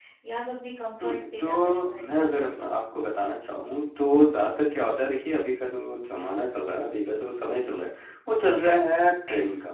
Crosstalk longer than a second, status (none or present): present